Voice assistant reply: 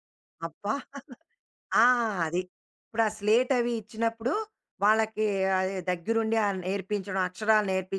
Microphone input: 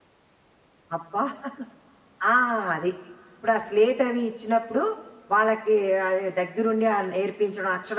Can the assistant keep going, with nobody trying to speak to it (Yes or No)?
Yes